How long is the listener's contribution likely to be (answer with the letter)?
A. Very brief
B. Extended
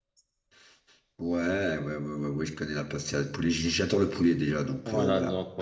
B